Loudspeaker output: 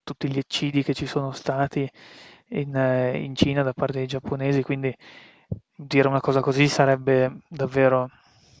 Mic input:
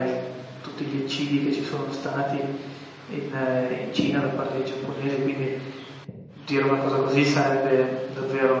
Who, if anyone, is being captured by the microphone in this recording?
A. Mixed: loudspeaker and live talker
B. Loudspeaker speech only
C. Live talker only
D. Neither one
B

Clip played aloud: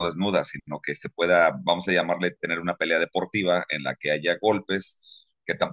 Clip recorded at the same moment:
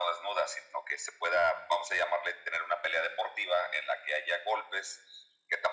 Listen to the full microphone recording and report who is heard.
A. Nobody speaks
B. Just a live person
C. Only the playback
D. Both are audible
C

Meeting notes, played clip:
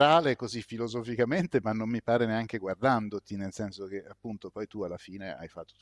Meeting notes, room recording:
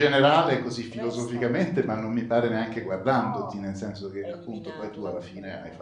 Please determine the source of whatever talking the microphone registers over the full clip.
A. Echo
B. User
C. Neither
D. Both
D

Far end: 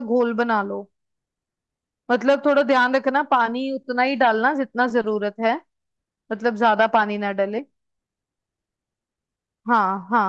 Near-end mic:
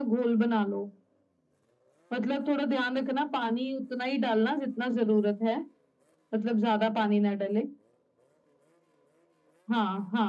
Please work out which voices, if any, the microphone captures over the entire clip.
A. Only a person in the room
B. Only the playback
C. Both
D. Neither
B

